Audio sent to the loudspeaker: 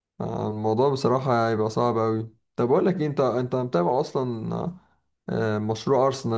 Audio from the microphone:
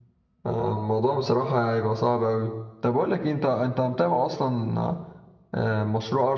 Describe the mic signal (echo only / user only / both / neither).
echo only